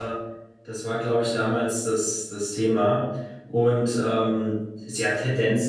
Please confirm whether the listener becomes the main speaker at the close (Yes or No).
No